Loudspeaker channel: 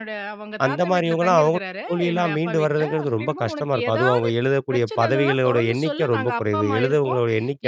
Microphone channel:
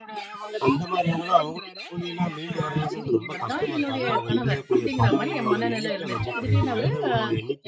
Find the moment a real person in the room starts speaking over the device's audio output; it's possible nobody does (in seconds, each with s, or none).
2.6 s